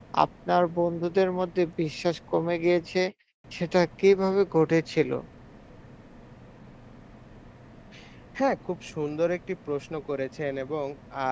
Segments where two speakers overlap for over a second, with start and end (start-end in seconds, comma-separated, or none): none